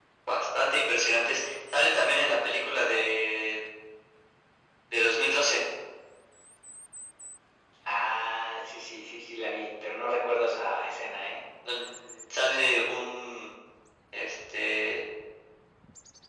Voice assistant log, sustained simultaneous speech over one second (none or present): none